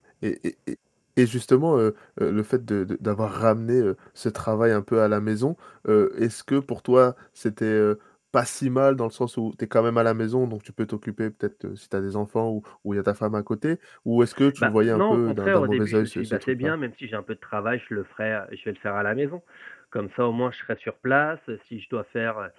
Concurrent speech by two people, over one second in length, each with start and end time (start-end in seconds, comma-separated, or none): 14.6-16.7